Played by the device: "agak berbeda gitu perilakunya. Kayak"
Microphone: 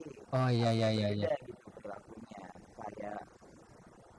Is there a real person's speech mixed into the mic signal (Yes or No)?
Yes